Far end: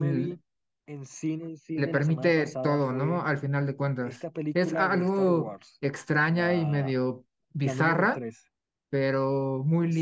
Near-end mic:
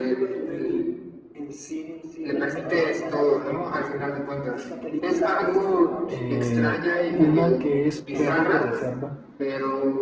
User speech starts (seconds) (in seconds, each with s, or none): 6.1 s